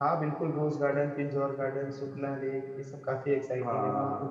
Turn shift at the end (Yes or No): Yes